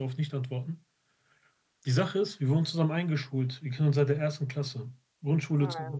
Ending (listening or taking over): listening